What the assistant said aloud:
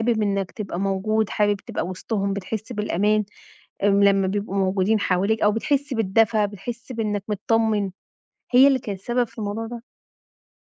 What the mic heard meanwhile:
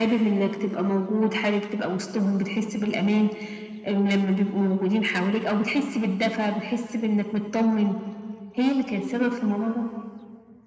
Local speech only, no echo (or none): none